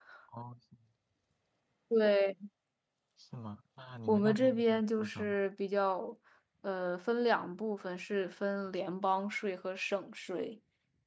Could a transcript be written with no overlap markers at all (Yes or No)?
No